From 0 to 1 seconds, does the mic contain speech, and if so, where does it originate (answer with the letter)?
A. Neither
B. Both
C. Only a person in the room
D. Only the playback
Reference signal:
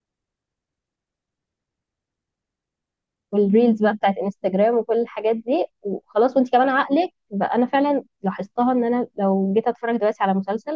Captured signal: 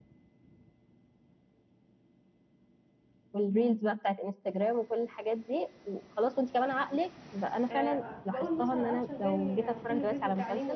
A